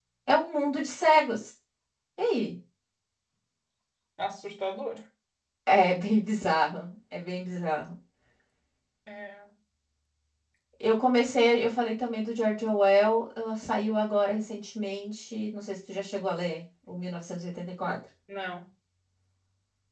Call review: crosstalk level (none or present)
none